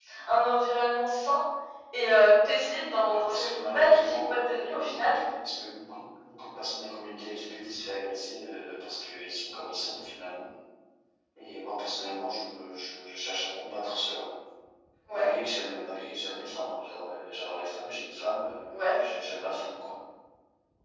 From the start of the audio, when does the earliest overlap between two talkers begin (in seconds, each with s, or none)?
2.9 s